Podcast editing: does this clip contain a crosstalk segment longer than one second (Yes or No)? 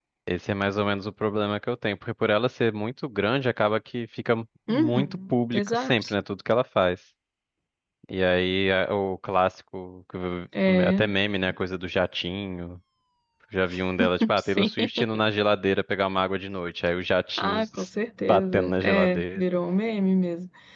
Yes